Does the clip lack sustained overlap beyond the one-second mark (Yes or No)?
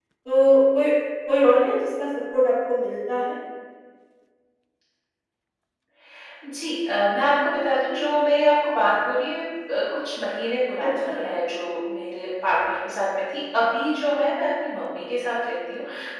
Yes